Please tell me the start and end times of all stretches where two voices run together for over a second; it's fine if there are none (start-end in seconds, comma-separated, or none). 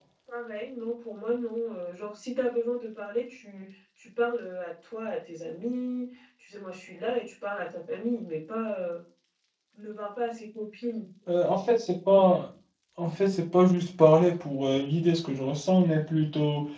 none